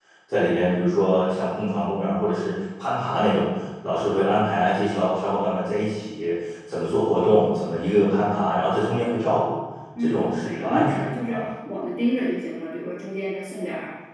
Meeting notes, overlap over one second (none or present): present